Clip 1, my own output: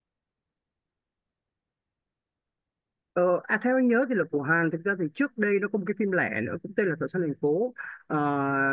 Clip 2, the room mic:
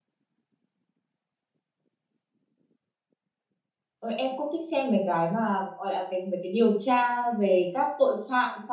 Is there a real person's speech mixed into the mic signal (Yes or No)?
Yes